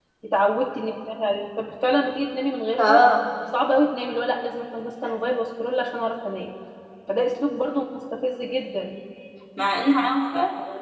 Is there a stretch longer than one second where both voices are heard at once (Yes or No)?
No